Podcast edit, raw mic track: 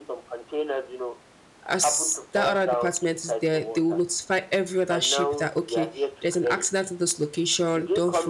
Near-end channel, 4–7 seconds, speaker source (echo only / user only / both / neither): both